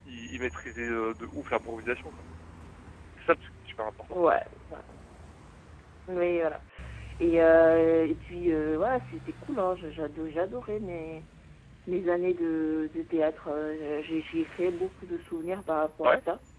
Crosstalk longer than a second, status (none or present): none